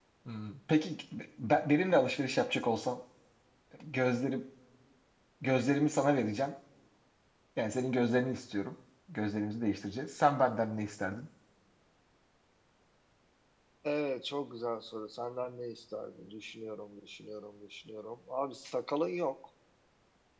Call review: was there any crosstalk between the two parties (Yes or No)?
No